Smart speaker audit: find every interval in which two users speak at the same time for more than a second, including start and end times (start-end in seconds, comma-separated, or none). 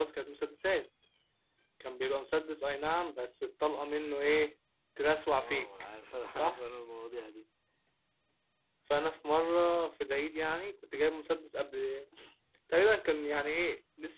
none